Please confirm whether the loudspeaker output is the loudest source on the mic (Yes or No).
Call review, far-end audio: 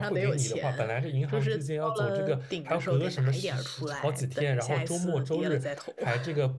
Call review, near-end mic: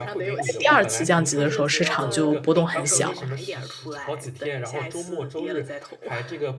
No